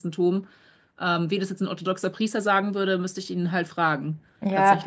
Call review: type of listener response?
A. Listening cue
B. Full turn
B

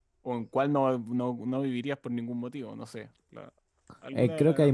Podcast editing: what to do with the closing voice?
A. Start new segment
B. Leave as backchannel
A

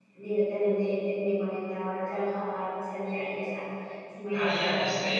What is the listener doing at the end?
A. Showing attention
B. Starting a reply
B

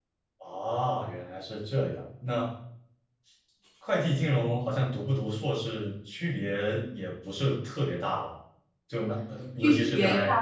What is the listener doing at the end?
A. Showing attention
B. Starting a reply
B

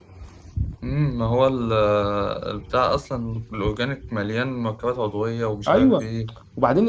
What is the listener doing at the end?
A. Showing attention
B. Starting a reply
B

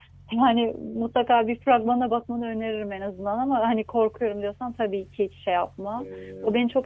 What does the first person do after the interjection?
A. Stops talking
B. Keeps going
B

